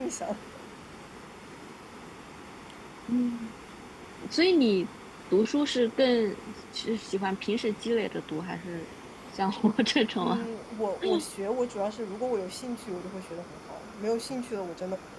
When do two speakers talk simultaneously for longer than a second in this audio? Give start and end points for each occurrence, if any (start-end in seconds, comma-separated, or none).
none